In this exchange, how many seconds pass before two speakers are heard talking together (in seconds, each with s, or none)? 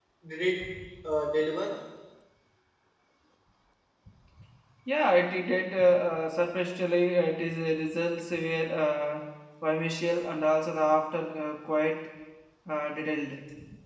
none